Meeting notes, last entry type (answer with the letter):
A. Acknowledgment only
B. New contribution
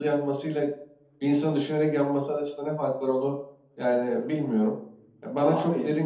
A